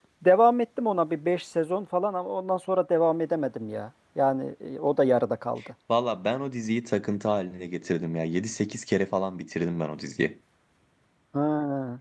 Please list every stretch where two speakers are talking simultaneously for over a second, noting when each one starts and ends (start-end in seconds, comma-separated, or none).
none